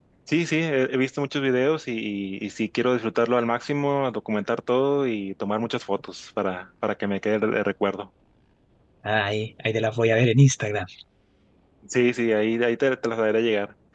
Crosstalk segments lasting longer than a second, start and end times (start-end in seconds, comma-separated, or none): none